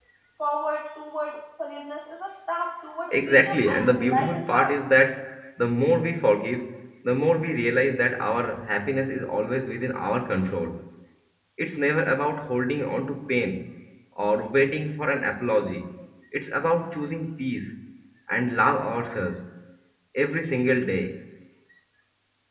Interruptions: present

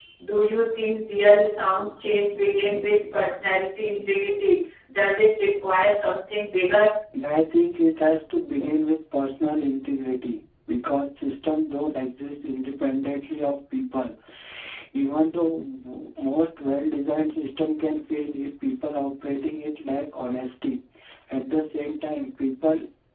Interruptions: none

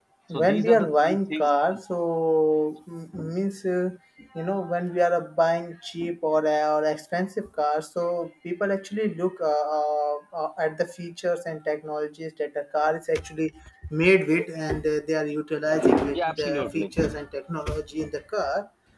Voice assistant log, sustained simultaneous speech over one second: present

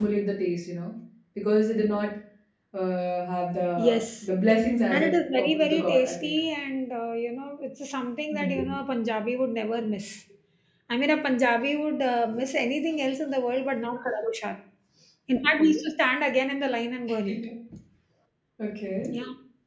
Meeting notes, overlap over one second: present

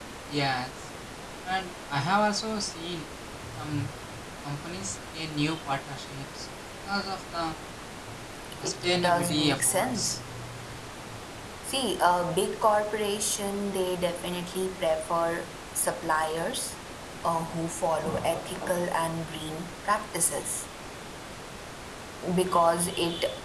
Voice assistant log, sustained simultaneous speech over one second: present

